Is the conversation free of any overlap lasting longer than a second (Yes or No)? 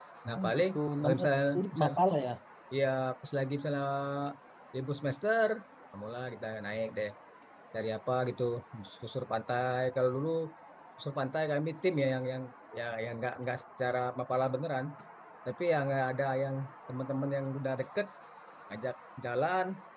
No